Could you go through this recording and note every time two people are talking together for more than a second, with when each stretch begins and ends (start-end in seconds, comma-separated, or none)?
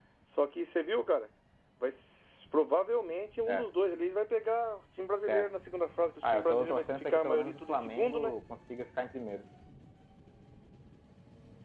6.2-8.3